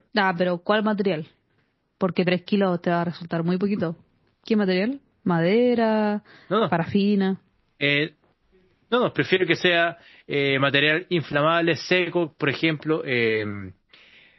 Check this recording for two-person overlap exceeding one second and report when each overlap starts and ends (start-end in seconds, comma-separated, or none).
none